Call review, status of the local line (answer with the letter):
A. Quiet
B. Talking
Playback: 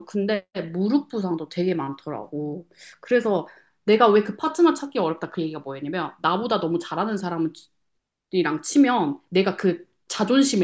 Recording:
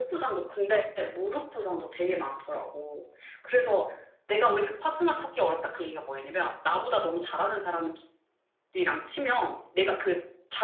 A